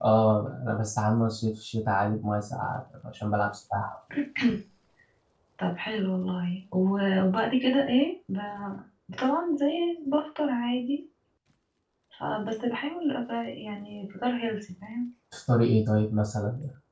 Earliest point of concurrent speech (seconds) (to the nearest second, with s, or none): none